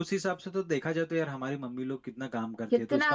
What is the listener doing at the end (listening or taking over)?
listening